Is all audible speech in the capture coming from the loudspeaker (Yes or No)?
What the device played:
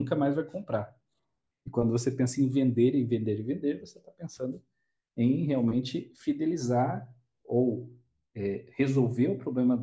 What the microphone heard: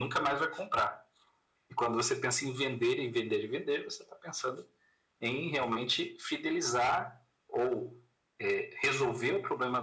Yes